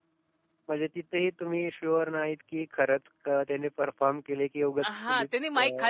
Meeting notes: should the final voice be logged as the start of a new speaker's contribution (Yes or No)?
Yes